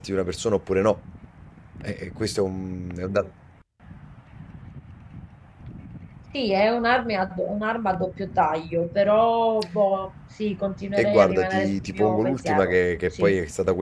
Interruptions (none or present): present